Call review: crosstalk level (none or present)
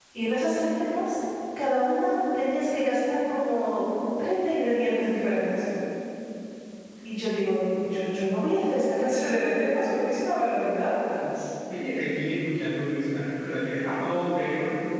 none